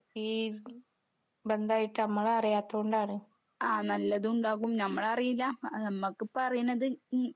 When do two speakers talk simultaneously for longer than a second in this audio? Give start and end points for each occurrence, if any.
none

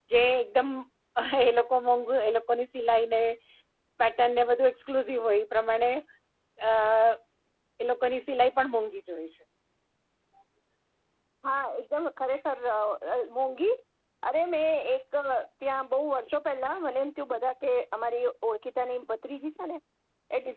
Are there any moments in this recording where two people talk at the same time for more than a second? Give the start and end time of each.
none

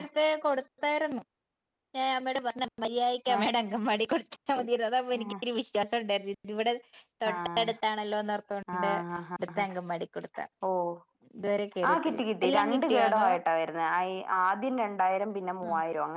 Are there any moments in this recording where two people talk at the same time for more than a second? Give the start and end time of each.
11.9-13.3

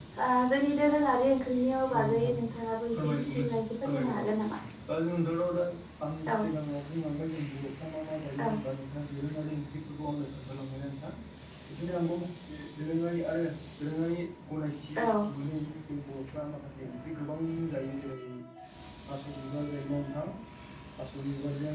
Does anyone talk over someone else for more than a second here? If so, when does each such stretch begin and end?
2.9-4.2

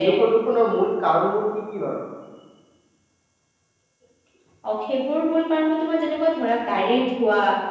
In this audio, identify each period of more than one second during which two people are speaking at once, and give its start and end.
none

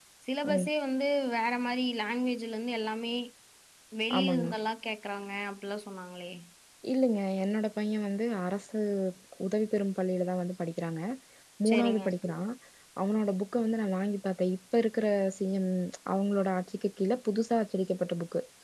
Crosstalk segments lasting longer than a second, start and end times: none

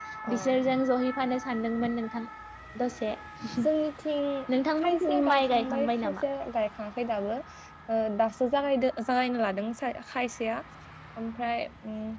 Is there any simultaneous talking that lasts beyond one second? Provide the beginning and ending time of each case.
4.8-6.2

